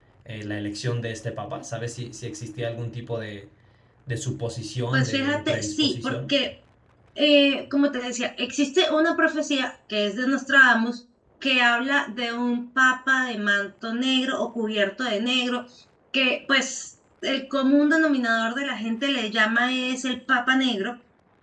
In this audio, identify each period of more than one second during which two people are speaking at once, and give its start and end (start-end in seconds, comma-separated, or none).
4.9-6.3